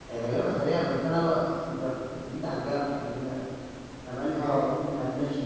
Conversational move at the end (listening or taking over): listening